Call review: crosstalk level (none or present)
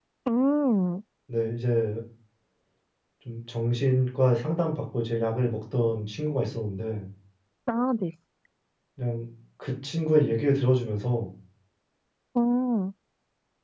none